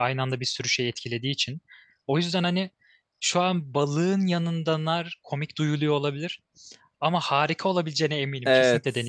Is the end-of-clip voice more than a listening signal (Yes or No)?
Yes